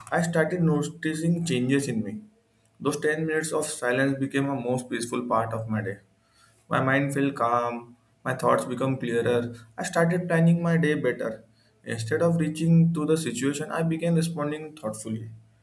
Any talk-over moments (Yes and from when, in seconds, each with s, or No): No